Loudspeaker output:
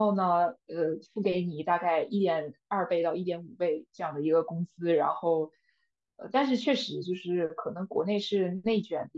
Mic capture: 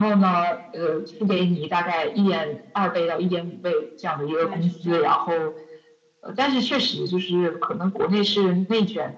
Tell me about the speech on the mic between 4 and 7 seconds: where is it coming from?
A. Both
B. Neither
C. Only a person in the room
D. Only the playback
A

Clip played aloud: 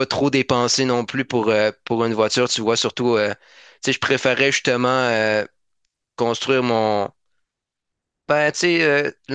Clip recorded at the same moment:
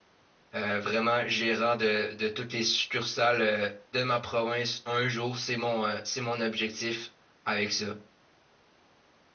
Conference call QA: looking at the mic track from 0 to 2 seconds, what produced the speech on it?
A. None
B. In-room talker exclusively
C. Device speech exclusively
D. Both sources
B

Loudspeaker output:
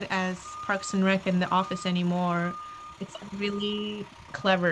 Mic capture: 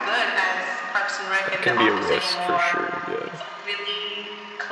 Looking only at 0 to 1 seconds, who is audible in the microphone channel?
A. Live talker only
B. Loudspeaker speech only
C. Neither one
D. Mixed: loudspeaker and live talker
B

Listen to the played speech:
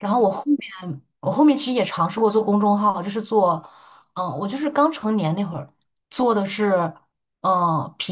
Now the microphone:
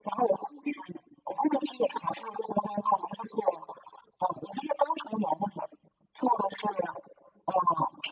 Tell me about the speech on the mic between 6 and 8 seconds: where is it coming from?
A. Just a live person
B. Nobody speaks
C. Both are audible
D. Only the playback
D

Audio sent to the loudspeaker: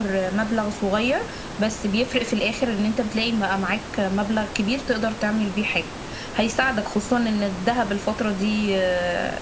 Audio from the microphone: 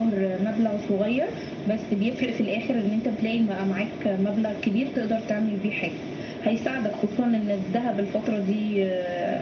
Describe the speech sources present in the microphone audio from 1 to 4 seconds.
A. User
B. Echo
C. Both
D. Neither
B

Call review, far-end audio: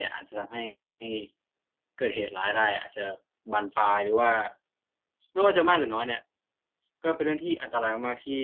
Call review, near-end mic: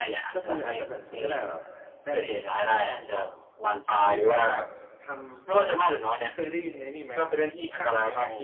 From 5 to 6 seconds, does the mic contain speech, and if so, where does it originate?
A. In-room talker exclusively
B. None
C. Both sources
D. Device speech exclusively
C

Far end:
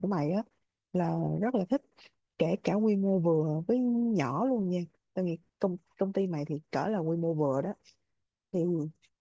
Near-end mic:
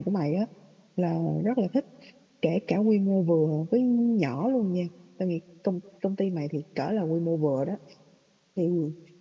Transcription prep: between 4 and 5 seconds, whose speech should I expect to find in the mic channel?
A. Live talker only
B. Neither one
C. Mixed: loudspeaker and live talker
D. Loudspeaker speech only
D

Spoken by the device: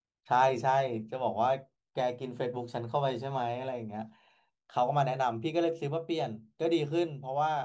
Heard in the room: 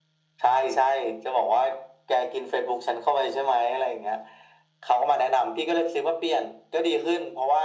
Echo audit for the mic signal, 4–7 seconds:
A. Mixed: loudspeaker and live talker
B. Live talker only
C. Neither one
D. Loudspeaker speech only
D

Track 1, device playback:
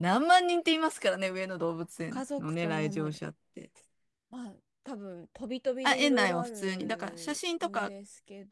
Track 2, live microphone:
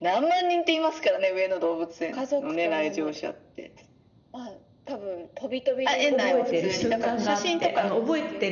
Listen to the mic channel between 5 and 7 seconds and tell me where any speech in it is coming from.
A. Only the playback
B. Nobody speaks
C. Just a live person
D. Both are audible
D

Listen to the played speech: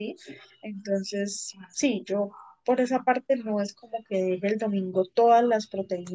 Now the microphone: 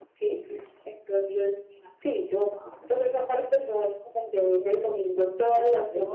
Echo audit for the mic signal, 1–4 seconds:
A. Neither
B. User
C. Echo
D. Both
C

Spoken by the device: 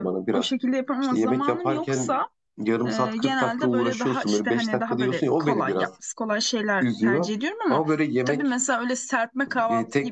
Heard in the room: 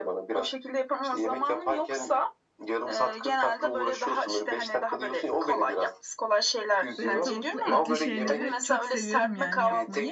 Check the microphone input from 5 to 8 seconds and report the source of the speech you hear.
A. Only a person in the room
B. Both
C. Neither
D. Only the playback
B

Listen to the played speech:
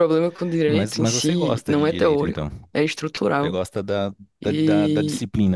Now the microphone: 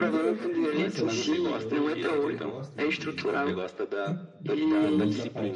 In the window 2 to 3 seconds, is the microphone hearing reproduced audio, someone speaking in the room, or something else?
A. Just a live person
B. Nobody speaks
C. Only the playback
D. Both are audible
D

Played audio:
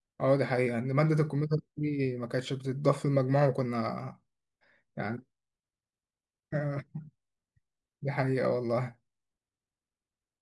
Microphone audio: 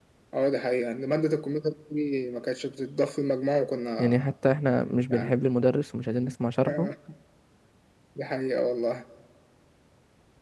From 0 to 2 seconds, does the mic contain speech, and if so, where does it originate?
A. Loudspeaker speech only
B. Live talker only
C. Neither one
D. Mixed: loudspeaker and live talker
A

